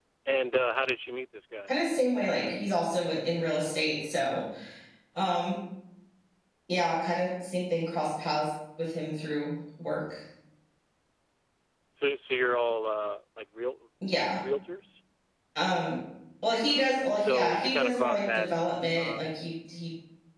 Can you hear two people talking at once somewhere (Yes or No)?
Yes